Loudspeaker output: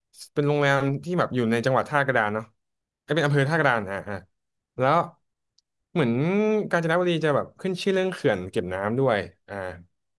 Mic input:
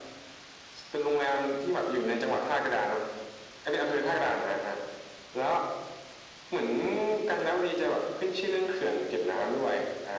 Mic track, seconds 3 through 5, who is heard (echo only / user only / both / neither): echo only